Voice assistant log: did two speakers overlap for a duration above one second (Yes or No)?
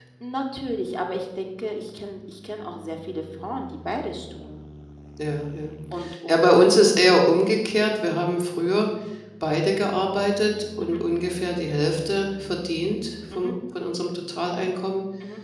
No